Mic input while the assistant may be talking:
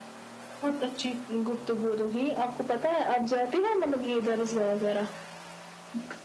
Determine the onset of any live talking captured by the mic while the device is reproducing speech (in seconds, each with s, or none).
none